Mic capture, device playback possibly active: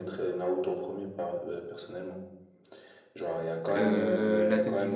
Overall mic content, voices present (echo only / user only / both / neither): both